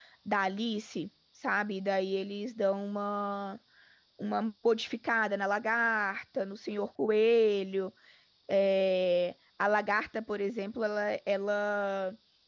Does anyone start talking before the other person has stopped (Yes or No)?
No